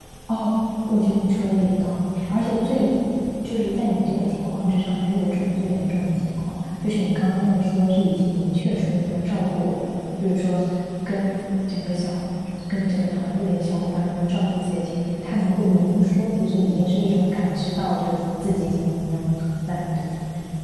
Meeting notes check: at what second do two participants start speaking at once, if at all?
none

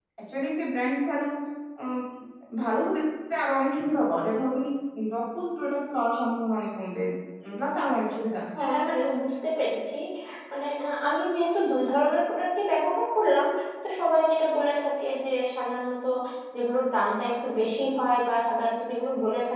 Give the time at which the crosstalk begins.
none

